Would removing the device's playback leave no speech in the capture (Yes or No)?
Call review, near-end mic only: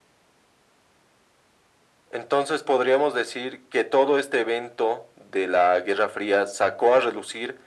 Yes